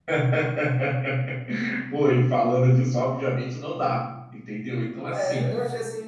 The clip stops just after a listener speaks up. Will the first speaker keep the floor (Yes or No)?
No